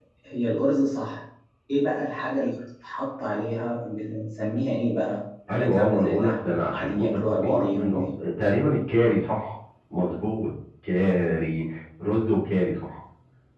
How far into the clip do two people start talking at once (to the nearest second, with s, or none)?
5 s